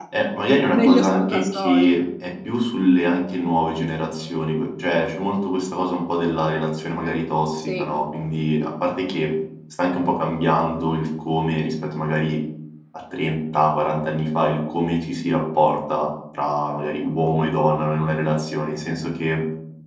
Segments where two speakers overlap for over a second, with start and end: 0.7-2.0

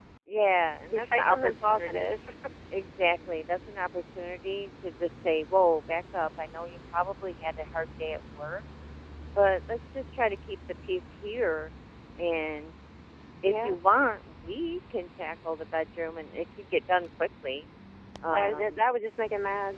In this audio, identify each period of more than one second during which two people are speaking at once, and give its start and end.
0.9-2.2

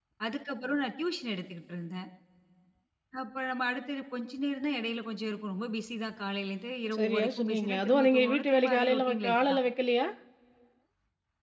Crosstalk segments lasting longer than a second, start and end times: 7.0-9.6

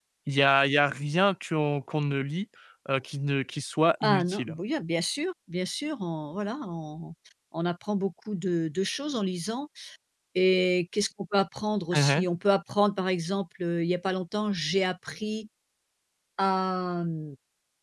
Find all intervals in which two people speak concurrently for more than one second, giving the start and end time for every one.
none

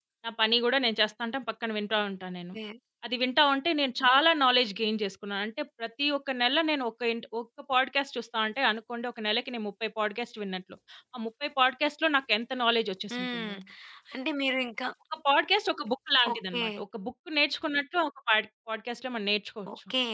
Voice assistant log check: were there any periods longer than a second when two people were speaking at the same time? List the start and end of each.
none

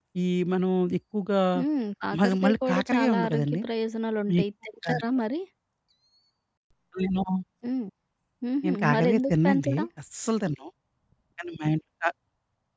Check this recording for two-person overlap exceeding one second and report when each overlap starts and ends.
2.2-3.6, 8.6-9.9

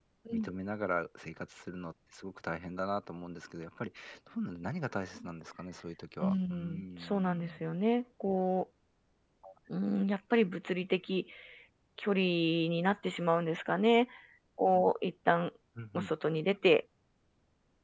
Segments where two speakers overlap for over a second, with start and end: 6.2-7.5

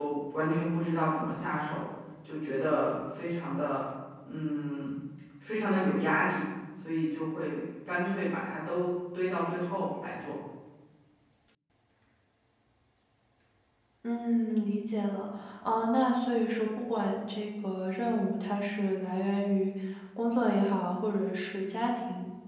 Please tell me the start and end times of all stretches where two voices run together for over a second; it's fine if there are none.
none

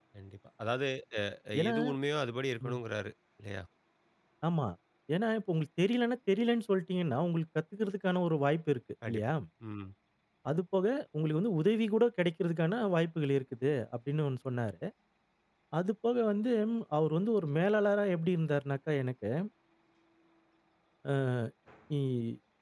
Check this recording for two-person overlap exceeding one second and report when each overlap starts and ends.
none

